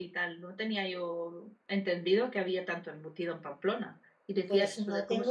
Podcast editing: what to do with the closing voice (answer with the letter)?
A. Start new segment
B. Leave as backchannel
A